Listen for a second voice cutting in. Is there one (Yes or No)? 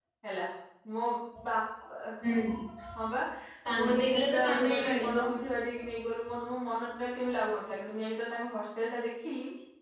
Yes